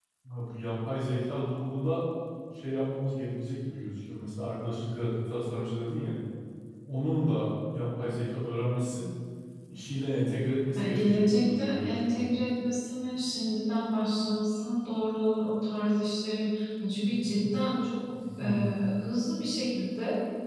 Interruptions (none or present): present